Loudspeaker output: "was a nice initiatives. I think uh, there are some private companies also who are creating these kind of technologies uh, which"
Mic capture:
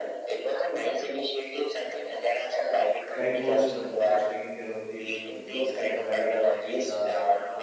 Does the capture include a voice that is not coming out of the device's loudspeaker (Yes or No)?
Yes